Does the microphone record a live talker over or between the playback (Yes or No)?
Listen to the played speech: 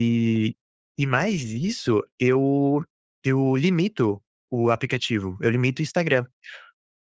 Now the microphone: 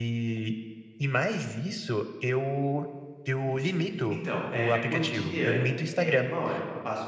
Yes